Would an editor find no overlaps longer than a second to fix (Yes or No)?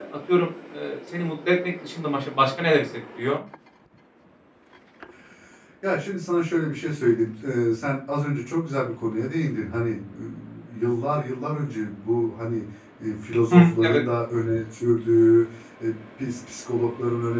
Yes